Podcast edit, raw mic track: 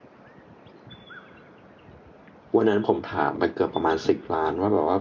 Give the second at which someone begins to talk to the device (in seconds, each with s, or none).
2.6 s